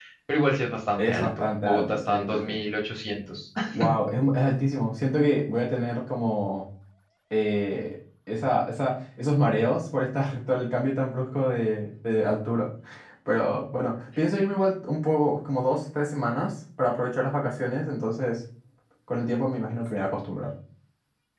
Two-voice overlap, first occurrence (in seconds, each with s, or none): 1.0 s